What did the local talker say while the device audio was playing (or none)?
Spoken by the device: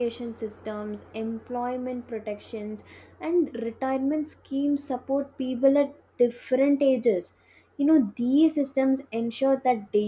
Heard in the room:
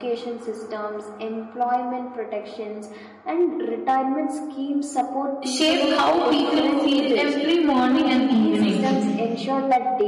shape how people feel every morning and evening.